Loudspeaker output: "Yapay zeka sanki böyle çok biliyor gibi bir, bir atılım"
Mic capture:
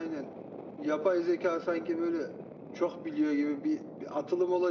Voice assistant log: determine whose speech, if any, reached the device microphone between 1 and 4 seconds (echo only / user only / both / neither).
echo only